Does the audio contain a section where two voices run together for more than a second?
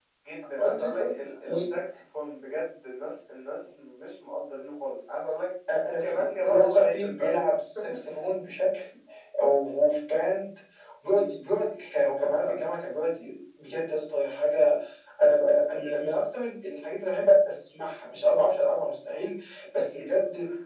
Yes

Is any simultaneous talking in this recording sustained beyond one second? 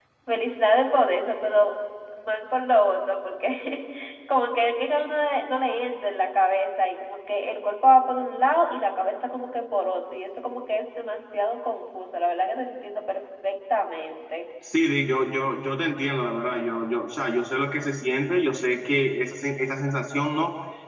No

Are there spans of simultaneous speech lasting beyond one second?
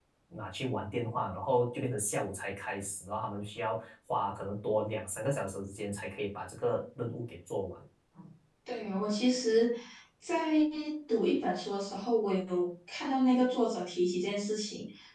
No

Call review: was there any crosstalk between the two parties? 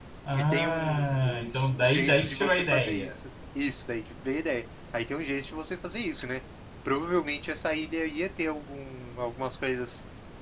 Yes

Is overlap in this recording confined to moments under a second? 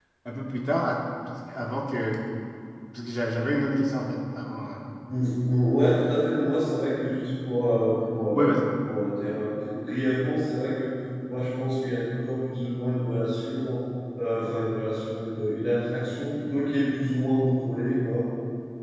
Yes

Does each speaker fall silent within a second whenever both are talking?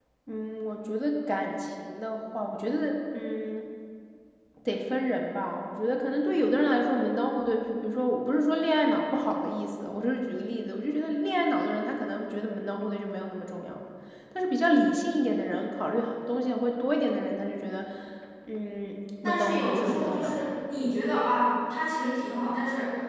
No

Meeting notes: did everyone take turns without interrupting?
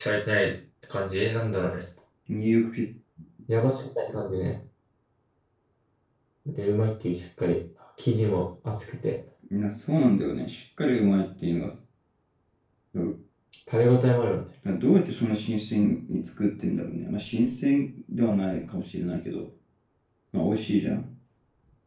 Yes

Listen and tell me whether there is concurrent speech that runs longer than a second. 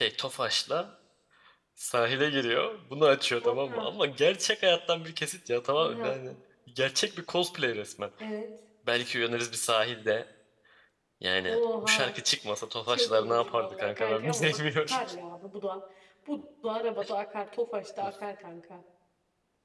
Yes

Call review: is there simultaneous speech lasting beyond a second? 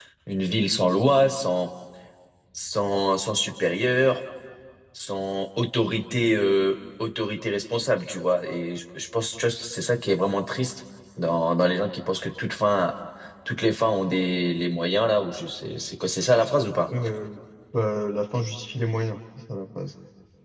No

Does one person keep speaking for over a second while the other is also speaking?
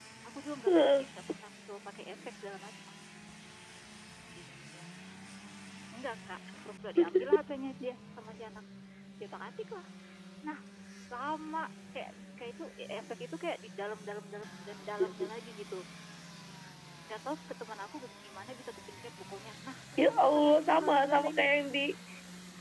Yes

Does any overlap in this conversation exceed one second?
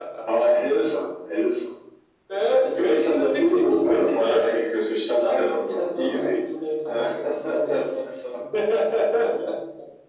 Yes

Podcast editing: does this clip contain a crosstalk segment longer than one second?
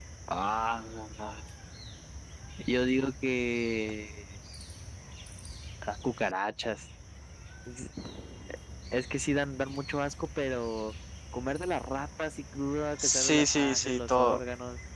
Yes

